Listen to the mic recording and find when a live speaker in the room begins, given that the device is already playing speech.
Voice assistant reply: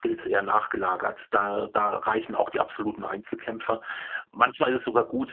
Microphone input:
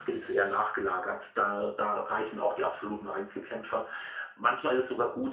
none

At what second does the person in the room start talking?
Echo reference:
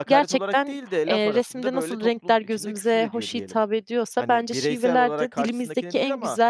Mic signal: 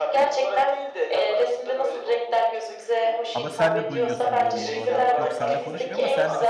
3.3 s

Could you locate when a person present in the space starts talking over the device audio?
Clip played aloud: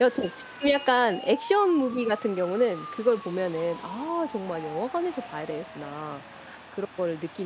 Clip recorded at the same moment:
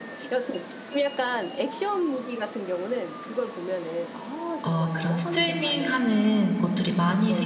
4.7 s

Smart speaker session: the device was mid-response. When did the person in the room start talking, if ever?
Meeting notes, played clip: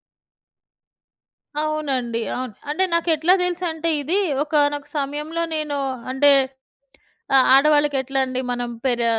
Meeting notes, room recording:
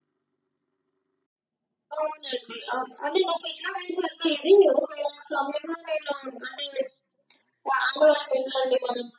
none

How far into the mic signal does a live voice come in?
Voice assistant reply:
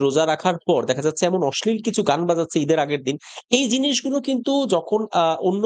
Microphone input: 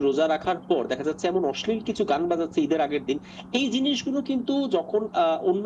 none

